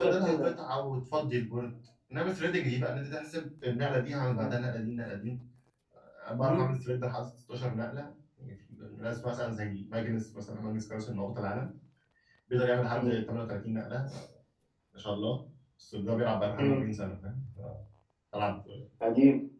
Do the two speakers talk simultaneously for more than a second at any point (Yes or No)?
No